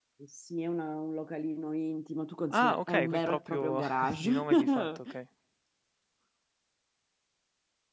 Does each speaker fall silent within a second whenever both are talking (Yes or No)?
No